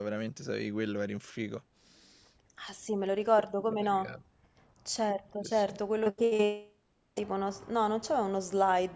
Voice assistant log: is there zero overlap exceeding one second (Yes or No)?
Yes